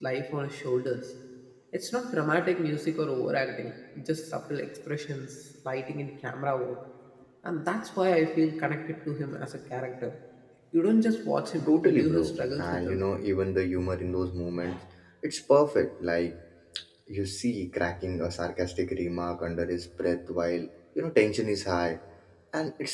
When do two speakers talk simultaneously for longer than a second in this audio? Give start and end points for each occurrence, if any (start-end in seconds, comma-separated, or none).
11.6-13.0